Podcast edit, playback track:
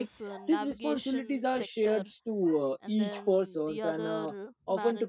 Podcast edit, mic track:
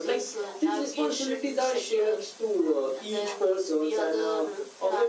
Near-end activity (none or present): none